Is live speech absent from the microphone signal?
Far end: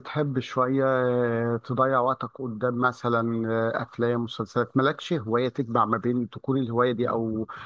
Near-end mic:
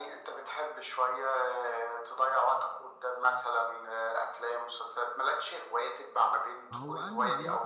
No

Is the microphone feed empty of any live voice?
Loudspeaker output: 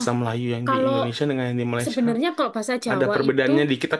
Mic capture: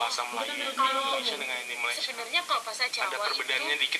No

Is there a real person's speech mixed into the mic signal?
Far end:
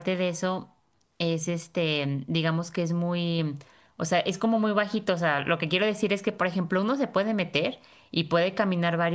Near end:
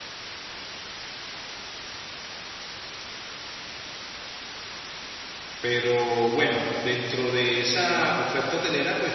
Yes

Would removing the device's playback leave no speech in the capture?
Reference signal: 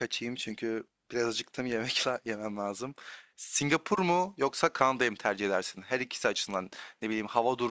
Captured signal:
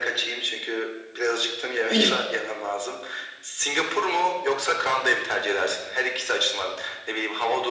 No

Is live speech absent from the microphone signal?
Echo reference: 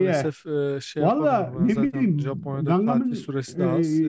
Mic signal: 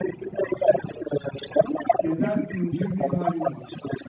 No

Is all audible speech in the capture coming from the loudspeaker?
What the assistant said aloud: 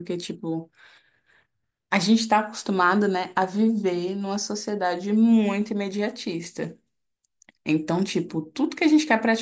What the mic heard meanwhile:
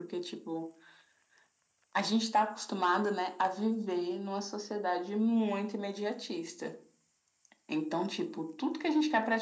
Yes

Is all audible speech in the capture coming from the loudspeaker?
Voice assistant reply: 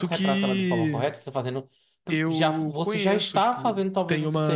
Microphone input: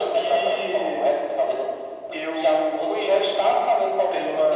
Yes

